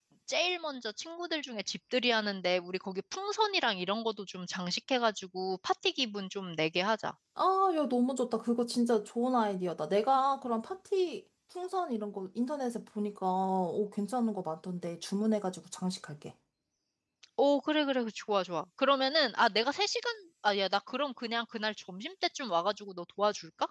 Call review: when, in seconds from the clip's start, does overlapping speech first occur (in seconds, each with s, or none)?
none